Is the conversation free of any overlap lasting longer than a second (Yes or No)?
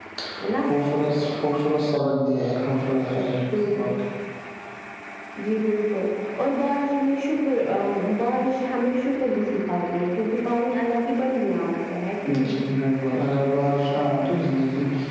Yes